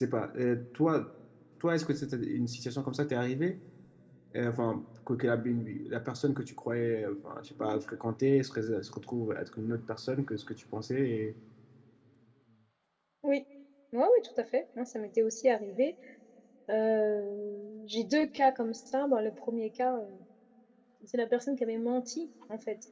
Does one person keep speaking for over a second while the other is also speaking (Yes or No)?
No